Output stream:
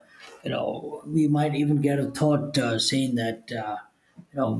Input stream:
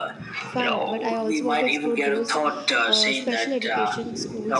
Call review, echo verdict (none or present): present